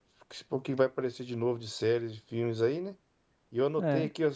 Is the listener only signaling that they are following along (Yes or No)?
Yes